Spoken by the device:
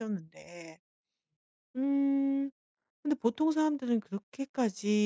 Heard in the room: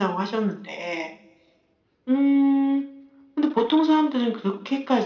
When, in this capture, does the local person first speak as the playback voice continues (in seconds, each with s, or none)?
none